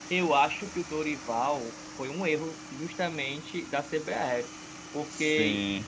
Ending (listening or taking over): listening